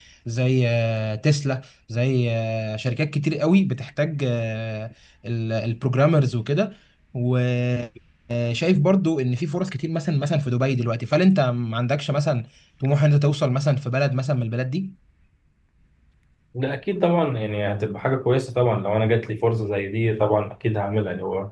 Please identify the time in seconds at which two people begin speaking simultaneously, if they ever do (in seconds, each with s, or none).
none